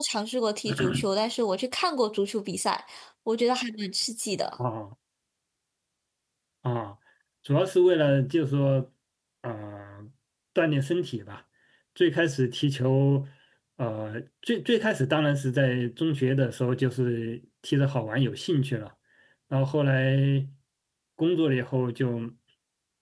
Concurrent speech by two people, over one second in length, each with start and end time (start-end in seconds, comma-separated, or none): none